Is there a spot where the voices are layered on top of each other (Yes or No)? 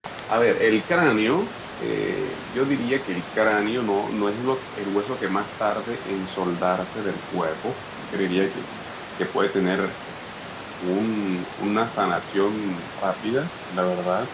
No